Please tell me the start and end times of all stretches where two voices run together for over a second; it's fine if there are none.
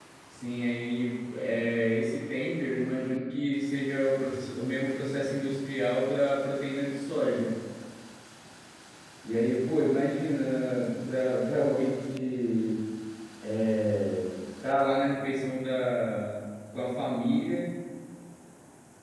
none

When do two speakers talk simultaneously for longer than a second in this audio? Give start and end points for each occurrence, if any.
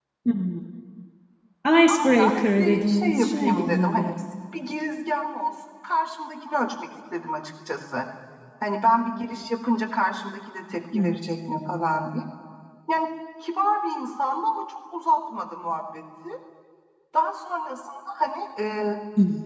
1.9-4.2

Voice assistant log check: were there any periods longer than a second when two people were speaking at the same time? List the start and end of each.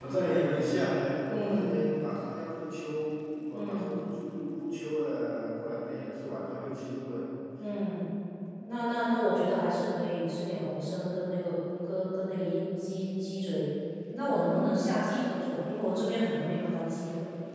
none

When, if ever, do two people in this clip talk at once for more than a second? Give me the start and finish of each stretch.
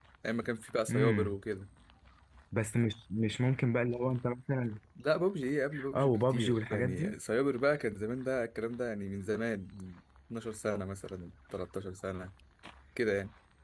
5.9-7.1

